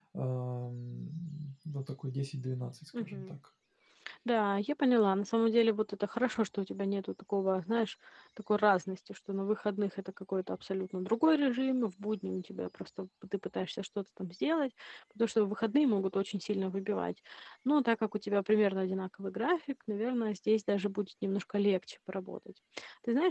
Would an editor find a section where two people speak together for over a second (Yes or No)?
No